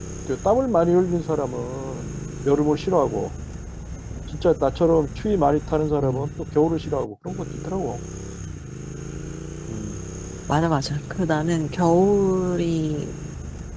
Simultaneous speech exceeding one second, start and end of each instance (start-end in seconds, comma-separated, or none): none